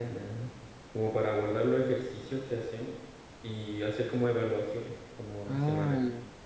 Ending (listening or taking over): taking over